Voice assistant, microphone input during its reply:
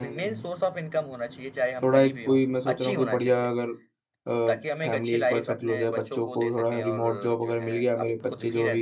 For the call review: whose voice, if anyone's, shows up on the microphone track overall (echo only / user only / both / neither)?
both